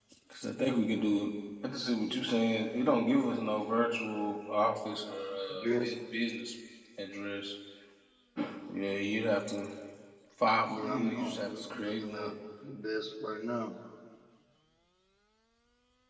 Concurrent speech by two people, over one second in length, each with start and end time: 10.7-12.3

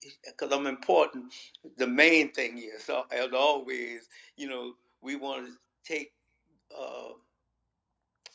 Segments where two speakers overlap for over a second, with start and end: none

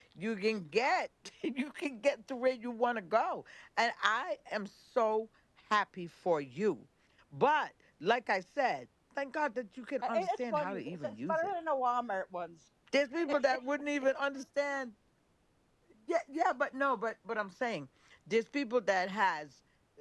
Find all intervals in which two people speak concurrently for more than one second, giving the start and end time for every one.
10.0-11.5

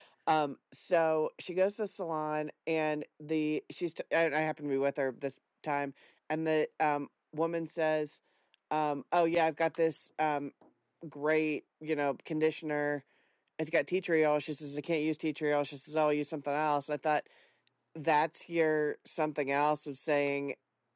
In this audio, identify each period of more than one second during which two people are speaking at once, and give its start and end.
none

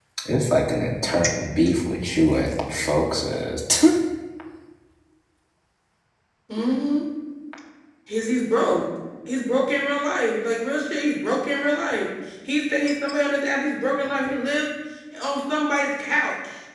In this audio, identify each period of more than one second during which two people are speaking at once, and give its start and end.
none

